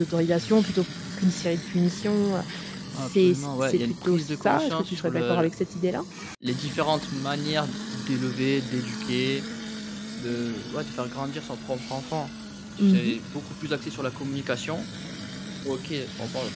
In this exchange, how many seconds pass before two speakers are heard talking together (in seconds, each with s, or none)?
3.0 s